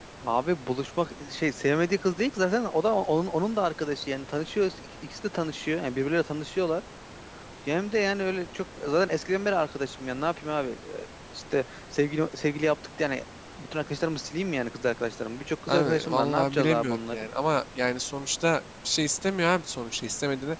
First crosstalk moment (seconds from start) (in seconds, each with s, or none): 15.7 s